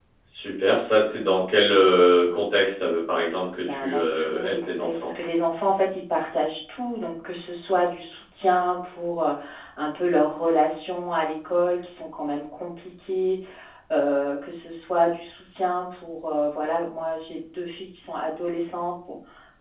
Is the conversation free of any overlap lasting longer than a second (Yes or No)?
No